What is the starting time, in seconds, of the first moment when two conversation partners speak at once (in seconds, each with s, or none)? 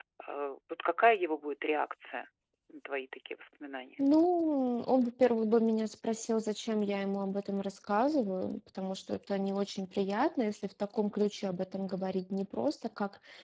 none